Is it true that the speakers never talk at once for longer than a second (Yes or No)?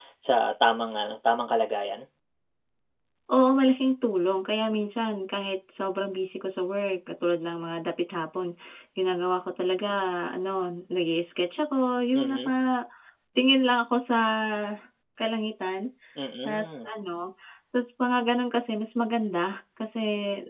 Yes